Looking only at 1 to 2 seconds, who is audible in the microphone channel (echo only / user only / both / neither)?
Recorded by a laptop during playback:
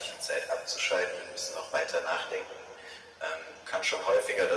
echo only